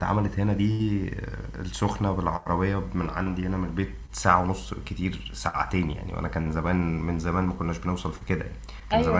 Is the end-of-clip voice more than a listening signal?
No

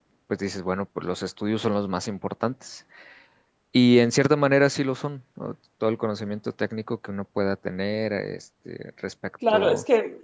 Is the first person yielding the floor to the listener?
Yes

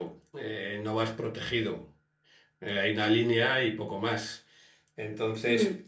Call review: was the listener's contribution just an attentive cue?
Yes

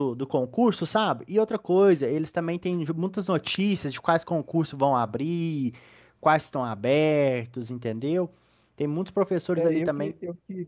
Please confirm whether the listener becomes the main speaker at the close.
Yes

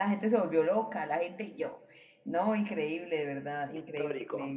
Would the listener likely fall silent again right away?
Yes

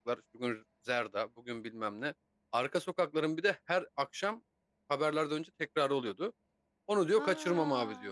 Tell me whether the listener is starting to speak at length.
No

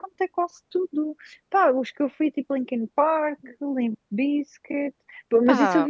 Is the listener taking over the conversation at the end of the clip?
No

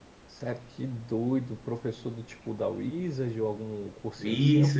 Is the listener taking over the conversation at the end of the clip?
Yes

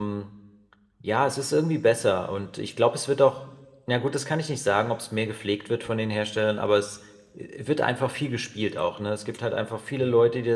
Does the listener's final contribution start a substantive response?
No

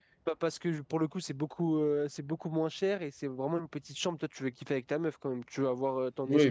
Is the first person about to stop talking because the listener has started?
Yes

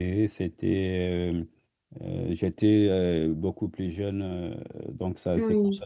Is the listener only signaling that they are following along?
Yes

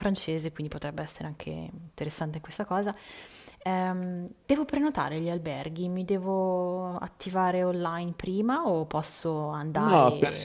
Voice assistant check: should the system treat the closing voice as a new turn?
Yes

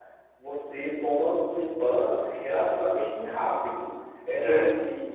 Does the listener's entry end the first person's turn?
No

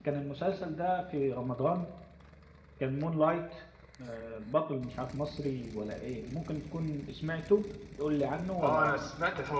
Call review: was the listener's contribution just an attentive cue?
No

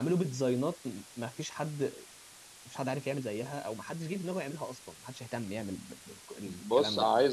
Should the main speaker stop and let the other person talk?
Yes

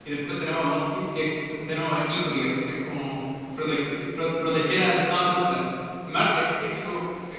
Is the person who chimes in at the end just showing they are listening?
Yes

